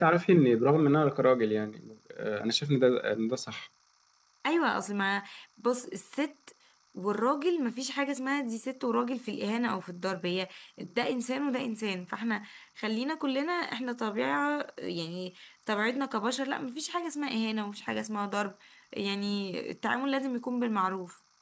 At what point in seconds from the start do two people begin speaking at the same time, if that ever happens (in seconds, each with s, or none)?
none